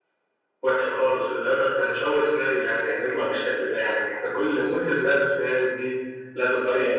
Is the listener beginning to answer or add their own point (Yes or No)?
Yes